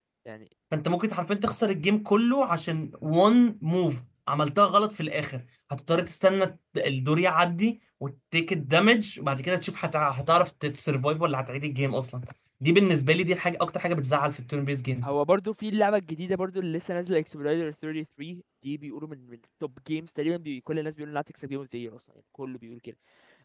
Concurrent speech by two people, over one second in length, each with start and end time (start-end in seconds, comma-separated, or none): none